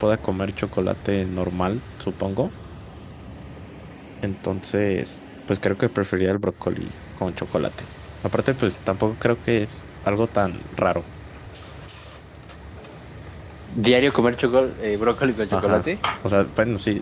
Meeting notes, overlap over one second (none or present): none